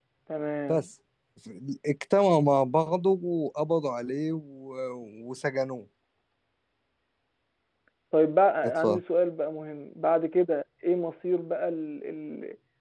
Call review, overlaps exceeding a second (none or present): none